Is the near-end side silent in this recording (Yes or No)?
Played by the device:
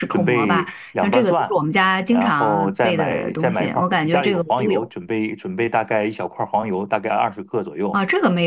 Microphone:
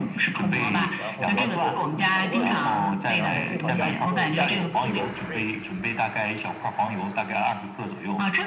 No